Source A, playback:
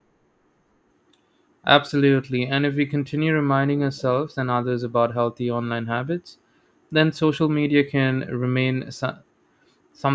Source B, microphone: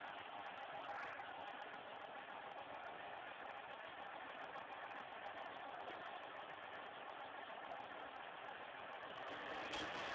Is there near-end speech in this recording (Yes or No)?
No